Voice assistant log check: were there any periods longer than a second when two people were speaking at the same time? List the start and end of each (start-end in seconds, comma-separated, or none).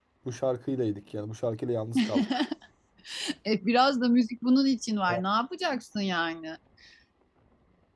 none